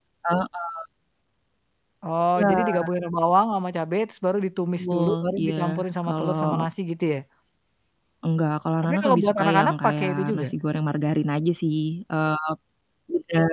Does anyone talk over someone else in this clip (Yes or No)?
Yes